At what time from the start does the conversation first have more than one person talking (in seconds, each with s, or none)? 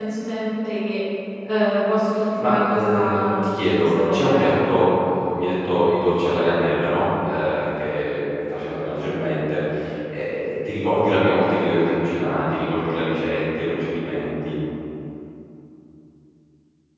2.2 s